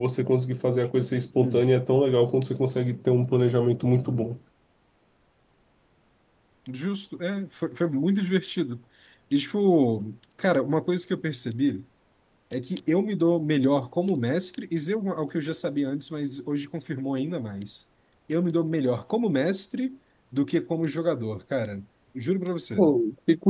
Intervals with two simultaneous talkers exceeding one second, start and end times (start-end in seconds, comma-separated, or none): none